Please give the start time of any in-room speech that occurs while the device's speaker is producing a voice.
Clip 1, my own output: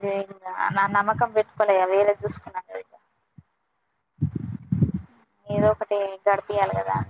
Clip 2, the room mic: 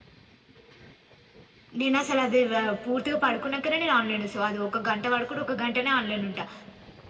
2 s

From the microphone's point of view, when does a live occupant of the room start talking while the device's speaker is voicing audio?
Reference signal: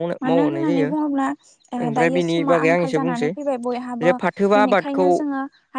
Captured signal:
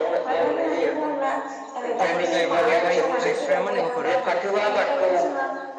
2 s

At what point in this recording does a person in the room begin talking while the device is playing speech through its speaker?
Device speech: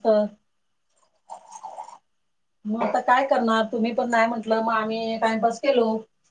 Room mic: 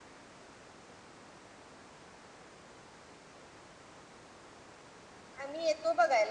5 s

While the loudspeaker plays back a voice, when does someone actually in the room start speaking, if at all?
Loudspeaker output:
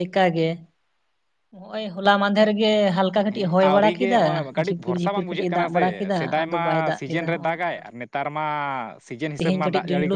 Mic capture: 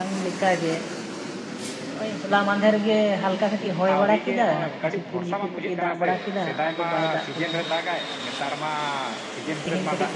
none

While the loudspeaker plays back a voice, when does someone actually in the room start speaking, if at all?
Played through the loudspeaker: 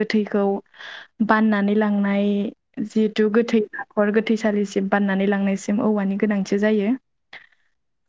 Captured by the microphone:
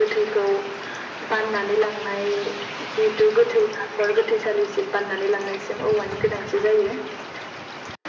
none

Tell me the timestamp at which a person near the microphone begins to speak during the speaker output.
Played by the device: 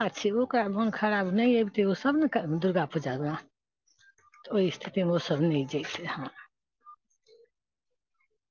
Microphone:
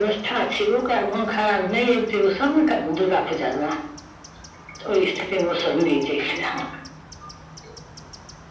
none

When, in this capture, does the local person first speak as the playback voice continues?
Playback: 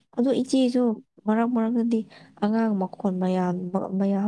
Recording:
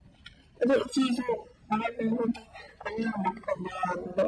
none

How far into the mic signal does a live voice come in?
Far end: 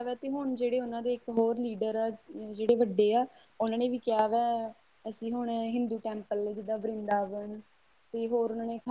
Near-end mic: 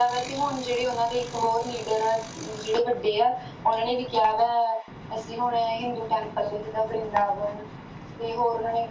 none

